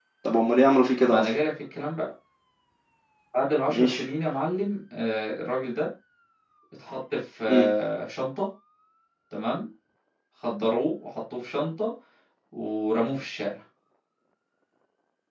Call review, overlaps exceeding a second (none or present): none